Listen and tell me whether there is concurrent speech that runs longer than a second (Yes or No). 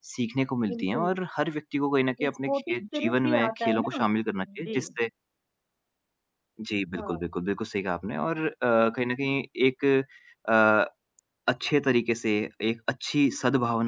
Yes